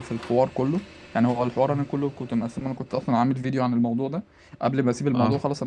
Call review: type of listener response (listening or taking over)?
listening